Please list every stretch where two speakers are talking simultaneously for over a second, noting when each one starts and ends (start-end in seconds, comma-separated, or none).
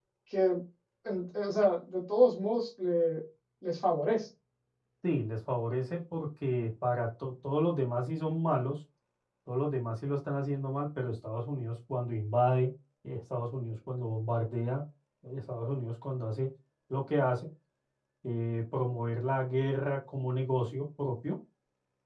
none